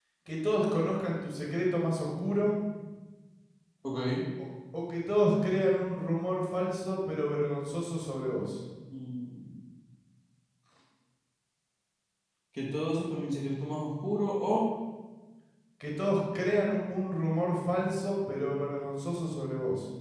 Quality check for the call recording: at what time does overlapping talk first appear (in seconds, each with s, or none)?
none